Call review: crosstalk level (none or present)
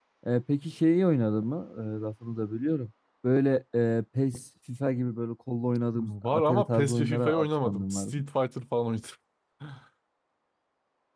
present